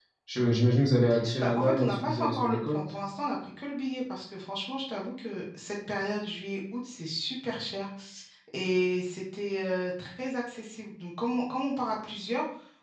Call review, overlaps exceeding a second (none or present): present